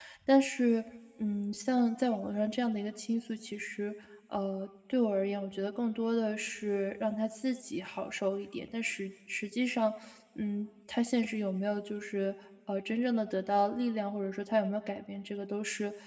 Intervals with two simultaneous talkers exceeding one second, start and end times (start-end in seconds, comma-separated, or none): none